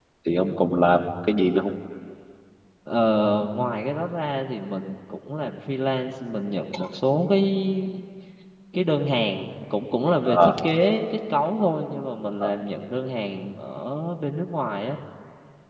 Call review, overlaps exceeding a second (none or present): none